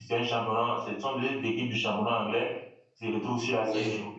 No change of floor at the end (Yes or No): Yes